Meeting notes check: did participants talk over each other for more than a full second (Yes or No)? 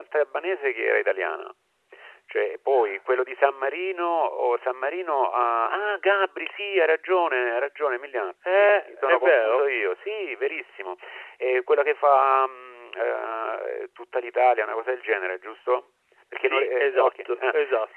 Yes